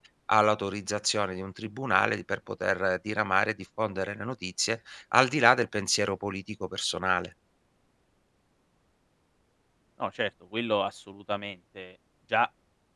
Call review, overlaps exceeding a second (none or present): none